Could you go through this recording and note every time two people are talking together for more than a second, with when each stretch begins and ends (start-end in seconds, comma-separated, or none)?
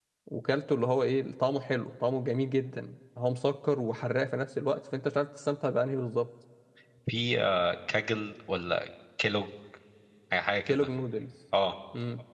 none